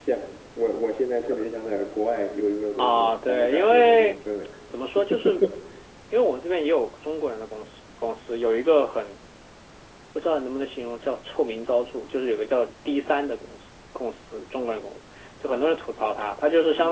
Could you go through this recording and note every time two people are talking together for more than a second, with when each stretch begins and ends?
2.8-4.2

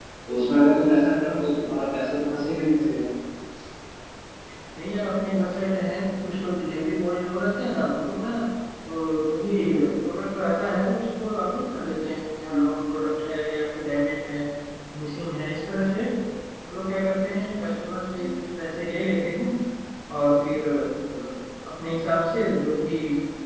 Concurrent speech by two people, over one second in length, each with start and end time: none

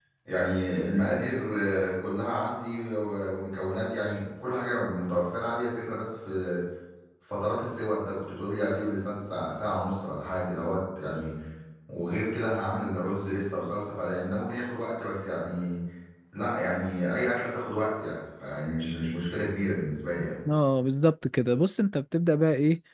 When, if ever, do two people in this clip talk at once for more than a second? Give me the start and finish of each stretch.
none

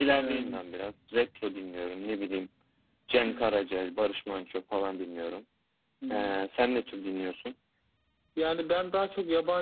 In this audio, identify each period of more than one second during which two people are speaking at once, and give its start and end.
none

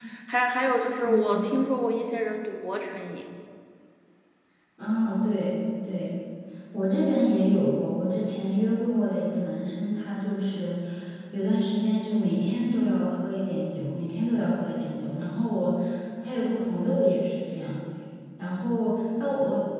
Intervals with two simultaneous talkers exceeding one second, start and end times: none

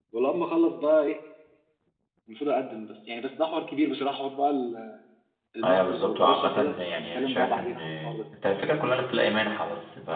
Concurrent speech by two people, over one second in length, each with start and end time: 5.6-8.2

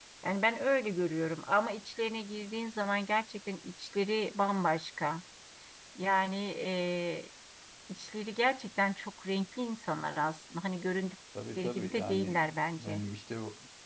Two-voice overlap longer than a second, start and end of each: 11.6-13.0

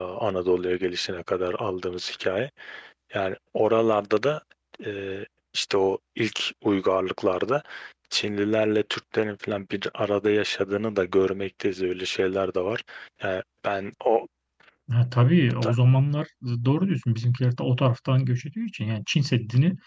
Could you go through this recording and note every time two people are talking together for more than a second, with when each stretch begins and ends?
none

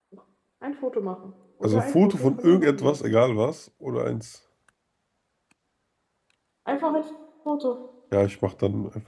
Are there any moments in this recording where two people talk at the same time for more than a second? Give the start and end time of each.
1.6-2.9

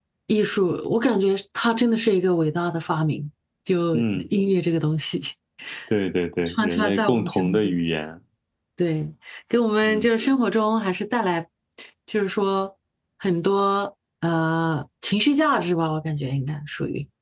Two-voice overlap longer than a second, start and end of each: 6.5-7.7

